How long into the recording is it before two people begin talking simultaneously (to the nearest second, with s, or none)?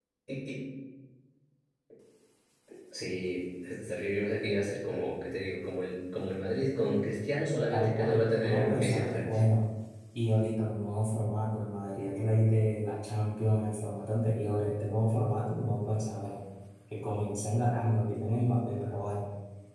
8 s